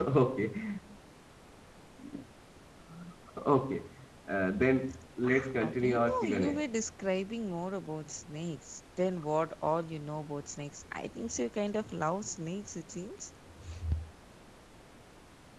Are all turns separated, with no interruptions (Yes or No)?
No